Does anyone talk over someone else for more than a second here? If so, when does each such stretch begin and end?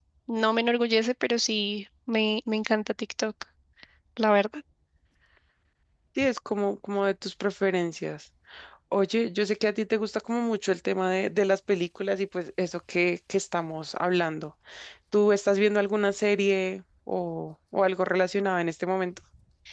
none

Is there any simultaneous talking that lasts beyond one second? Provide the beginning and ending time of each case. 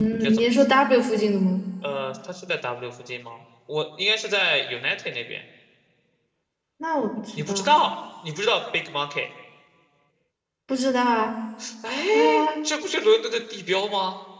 none

